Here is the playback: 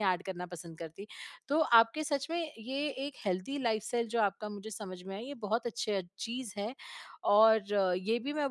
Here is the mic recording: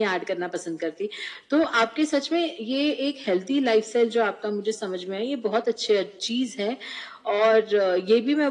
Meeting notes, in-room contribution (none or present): none